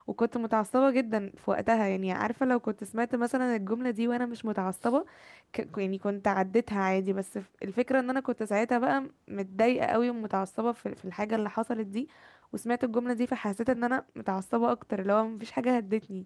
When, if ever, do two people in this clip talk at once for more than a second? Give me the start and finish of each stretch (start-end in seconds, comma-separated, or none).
none